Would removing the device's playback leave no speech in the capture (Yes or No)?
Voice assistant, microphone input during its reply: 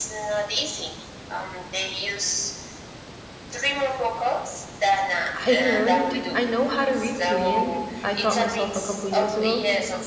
No